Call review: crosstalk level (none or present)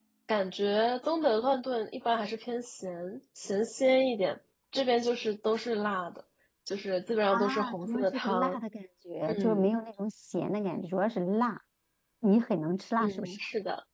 present